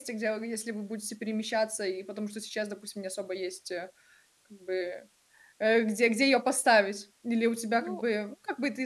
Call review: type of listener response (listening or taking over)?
listening